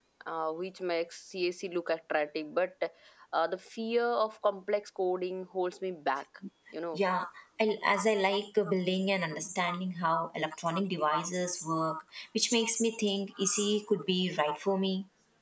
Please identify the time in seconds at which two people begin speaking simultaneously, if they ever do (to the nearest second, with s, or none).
none